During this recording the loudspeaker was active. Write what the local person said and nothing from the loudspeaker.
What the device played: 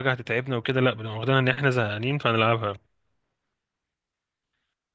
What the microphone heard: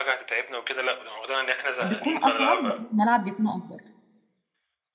بيكون اصعب لان الملعب بيكون اكبر

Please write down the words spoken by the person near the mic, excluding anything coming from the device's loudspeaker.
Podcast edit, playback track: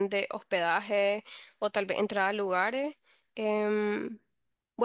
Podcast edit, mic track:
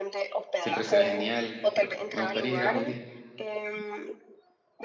siempre se ve genial, pero me gustaría ir algún día.

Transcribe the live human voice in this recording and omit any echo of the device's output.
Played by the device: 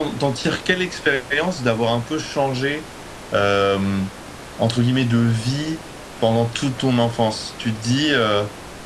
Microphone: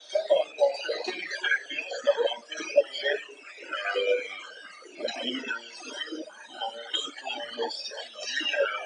none

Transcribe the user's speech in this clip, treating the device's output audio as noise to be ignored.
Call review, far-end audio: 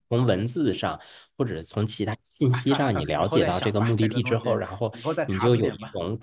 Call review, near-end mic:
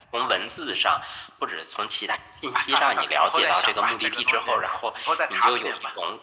none

